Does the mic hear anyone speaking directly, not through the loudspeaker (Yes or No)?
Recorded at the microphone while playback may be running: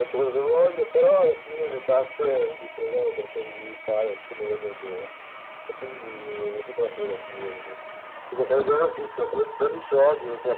No